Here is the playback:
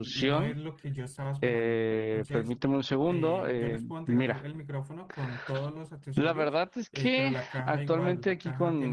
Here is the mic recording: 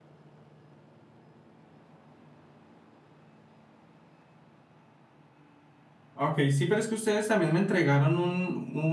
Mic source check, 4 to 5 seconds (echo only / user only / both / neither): neither